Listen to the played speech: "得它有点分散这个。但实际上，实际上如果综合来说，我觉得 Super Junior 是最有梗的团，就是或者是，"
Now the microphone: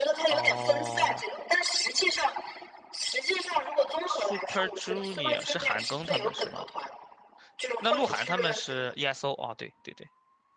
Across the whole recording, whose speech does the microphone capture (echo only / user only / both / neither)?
both